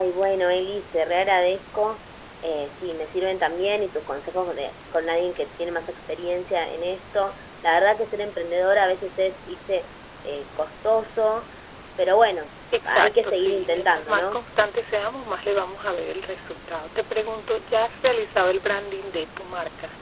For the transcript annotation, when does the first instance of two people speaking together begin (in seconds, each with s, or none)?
12.7 s